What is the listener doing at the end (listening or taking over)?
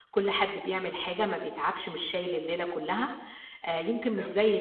listening